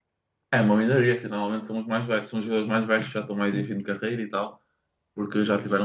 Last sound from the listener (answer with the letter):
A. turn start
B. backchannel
B